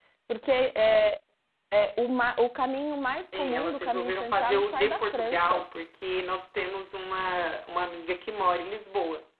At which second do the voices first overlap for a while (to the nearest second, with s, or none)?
3 s